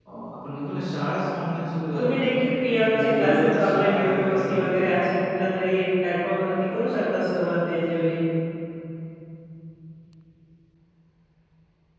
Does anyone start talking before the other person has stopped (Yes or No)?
Yes